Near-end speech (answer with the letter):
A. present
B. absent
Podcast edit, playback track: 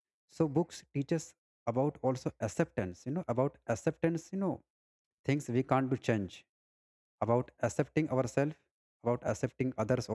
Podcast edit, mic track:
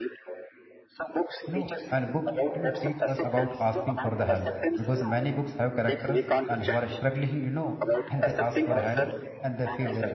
A